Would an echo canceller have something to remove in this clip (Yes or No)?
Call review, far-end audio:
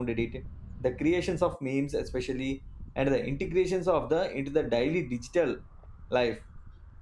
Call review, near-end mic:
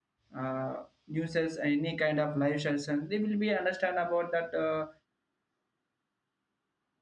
No